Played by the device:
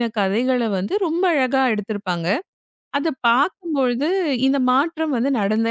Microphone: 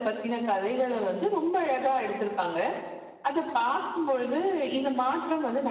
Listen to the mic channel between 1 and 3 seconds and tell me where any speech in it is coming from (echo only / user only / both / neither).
echo only